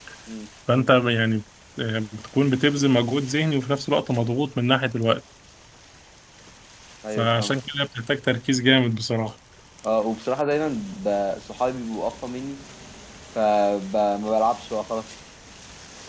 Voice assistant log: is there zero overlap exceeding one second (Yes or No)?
Yes